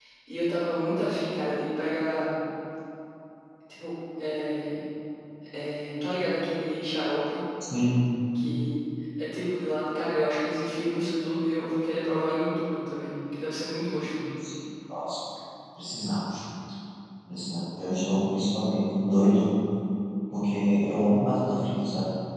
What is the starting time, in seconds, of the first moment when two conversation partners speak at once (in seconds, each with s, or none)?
none